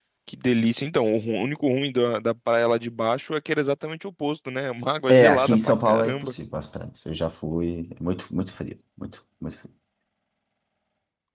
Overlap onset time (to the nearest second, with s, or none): 5 s